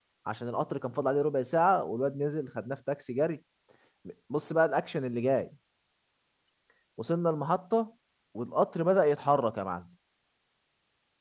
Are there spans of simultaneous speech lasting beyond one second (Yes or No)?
No